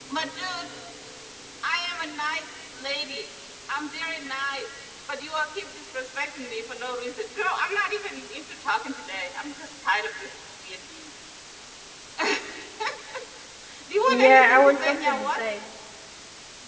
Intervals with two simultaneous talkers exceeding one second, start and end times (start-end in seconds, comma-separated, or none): 14.1-15.4